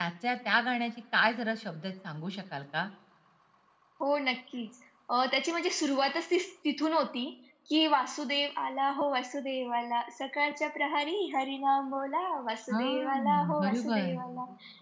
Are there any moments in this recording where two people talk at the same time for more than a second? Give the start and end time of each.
12.7-14.2

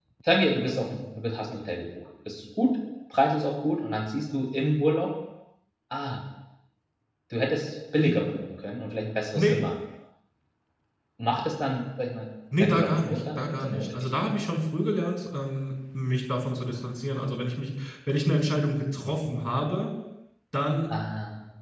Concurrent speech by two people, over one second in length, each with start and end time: 12.6-14.1

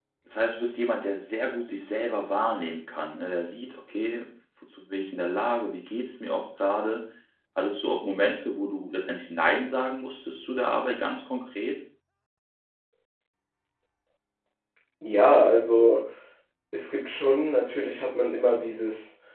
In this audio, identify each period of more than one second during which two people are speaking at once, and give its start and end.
none

